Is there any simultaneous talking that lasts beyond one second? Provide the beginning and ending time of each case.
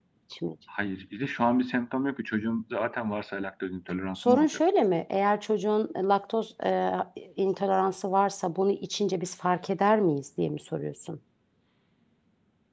none

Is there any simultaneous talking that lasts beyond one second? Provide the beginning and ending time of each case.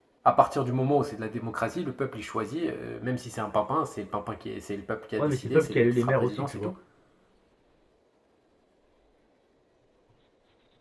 5.2-6.7

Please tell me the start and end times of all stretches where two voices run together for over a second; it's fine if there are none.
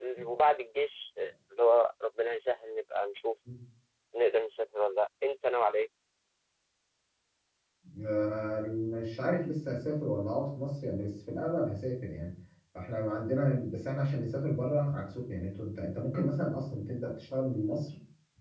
none

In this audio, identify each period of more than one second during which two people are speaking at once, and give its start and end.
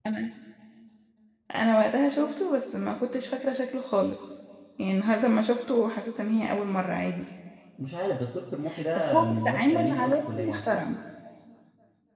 8.9-10.7

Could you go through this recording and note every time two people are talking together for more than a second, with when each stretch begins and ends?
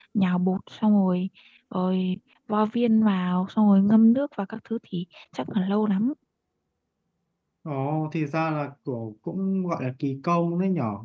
none

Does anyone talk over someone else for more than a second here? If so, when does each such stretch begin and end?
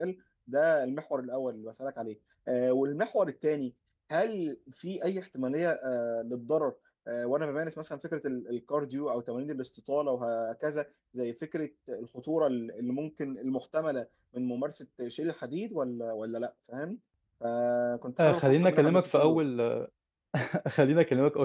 18.2-19.4

